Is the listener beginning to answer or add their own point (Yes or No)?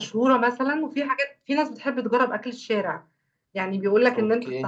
No